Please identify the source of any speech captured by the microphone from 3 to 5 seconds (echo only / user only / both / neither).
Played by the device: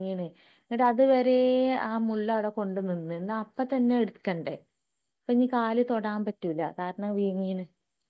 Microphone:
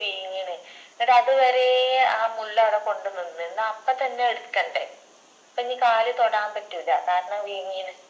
echo only